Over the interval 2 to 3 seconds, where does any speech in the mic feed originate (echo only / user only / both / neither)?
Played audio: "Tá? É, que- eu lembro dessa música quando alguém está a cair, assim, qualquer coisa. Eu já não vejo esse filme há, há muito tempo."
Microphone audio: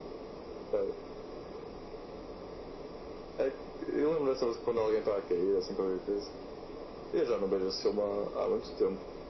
neither